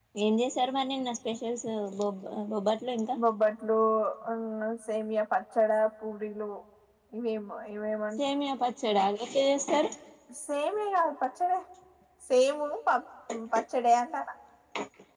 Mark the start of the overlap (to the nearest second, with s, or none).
none